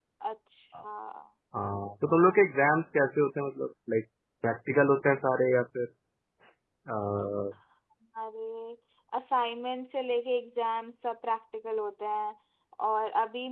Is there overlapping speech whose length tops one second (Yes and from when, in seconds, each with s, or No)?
No